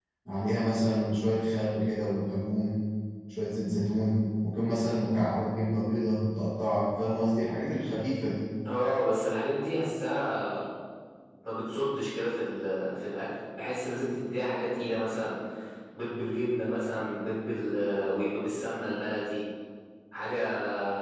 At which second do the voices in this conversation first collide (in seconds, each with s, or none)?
none